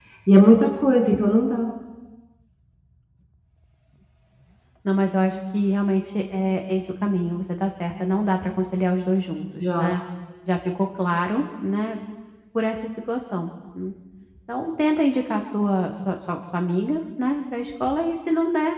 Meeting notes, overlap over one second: none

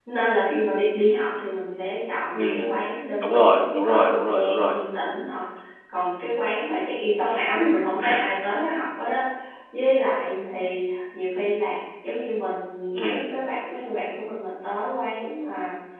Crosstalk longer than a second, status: present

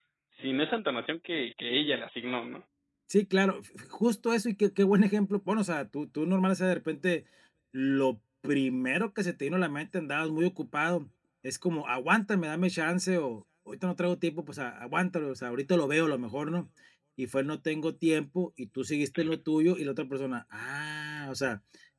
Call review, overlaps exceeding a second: none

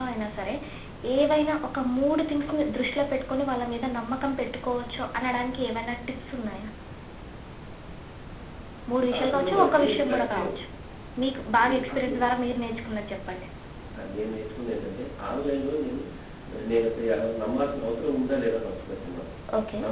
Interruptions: present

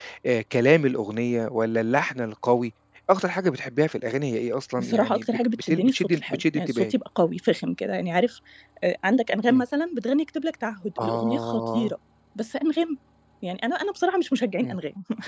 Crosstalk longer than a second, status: present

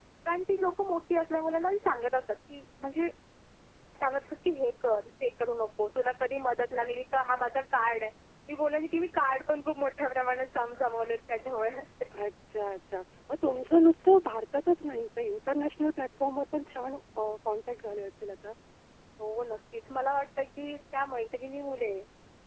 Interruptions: none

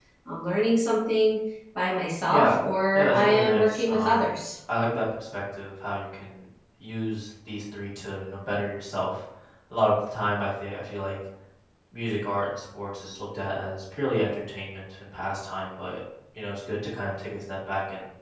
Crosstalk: present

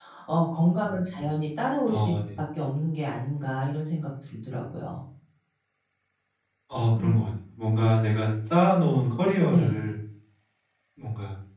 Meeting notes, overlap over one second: none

